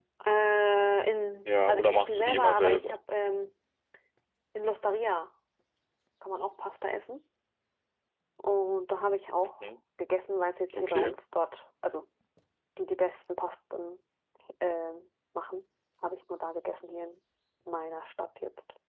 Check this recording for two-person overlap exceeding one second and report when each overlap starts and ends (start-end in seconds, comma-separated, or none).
1.4-3.0